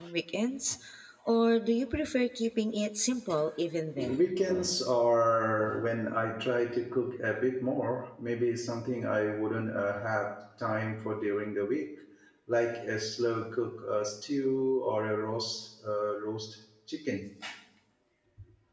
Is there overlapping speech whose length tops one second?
No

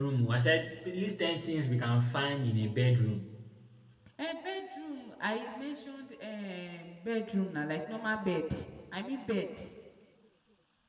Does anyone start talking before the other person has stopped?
No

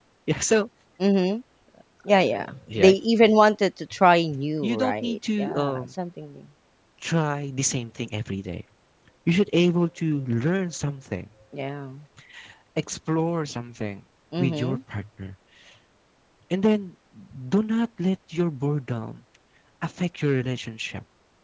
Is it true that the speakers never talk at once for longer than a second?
No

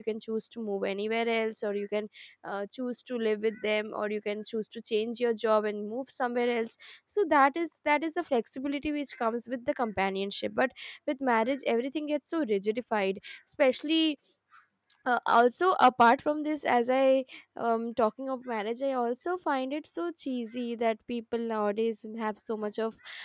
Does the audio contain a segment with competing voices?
No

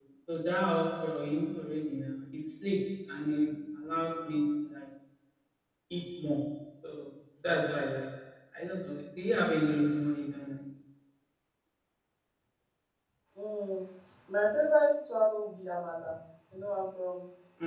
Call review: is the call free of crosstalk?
Yes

